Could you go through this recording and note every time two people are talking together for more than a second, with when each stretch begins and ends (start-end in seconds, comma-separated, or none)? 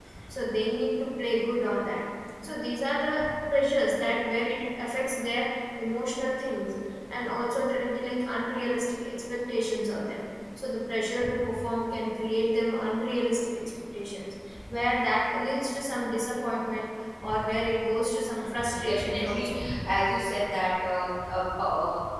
18.3-19.6